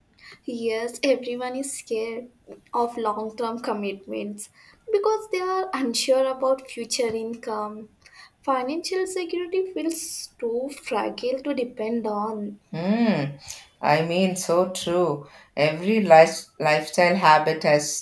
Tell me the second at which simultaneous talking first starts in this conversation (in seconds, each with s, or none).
none